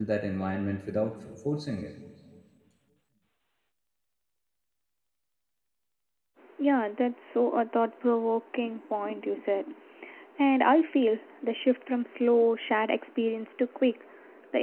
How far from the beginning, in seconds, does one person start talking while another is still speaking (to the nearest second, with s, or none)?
none